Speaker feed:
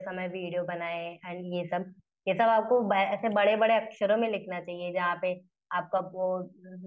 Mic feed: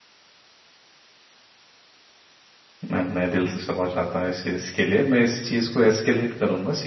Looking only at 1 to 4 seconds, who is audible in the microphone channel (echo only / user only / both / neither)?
user only